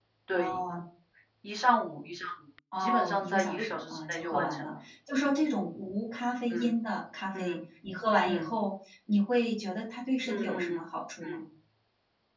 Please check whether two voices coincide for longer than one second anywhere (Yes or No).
Yes